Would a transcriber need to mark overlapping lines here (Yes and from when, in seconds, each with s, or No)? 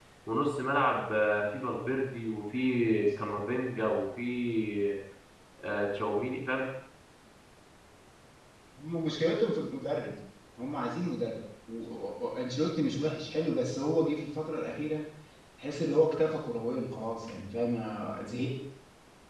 No